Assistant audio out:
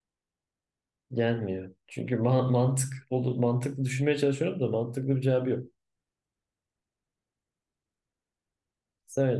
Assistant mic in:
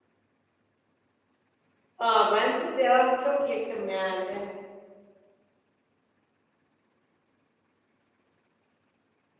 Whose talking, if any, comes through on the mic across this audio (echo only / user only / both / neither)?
user only